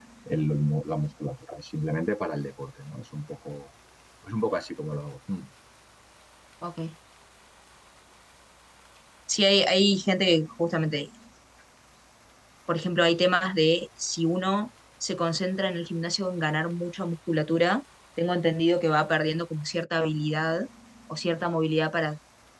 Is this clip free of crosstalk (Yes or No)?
Yes